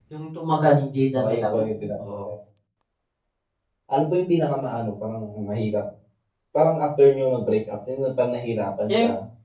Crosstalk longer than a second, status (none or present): none